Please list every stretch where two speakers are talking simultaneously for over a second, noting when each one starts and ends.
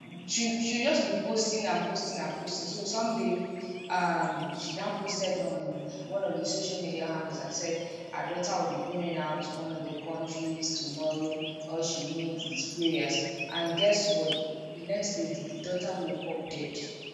none

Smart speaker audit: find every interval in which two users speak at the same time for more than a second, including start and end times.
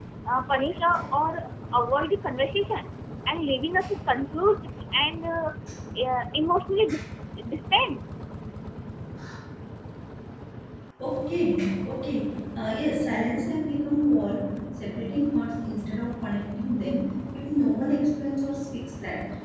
none

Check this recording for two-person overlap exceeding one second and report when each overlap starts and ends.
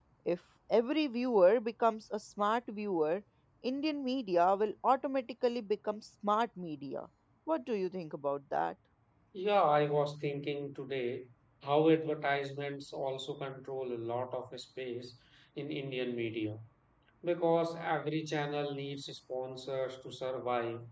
none

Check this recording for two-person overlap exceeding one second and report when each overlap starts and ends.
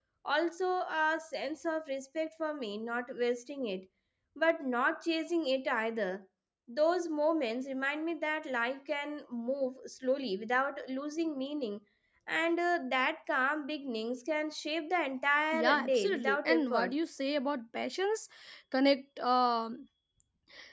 15.5-16.9

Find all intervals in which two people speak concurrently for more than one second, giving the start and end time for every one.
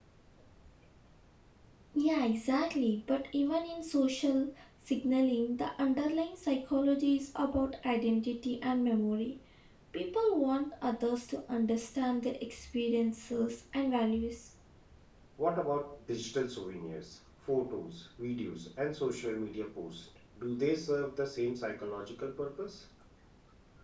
none

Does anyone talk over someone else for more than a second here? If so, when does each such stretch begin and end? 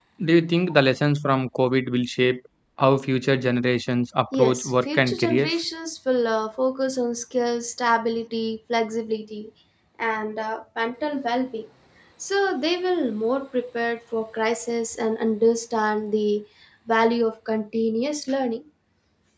4.3-5.6

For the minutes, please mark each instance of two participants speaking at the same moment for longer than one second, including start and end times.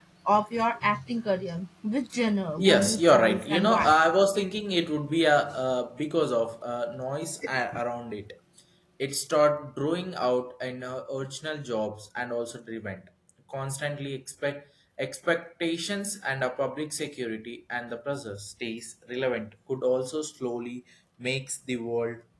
2.6-4.0

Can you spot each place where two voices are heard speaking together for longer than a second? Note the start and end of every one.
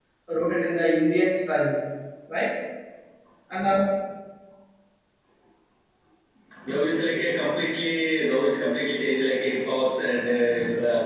none

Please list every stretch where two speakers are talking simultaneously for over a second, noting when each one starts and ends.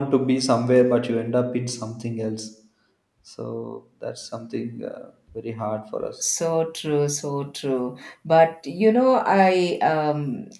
none

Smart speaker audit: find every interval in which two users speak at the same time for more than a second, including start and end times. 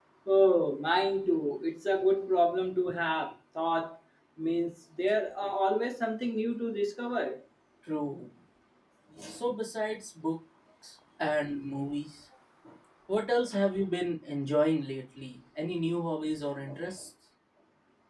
none

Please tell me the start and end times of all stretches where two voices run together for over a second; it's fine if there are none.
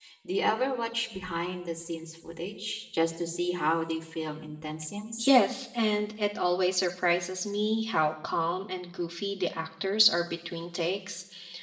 none

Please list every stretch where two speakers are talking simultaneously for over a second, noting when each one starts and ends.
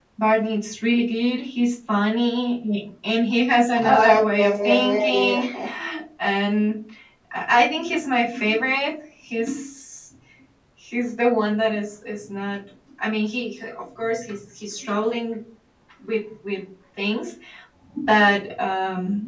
3.8-5.5

